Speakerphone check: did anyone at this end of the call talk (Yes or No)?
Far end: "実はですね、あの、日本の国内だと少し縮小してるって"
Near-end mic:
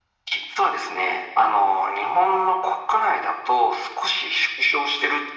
No